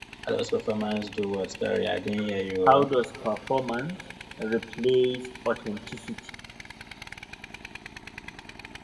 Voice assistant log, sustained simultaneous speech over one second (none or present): none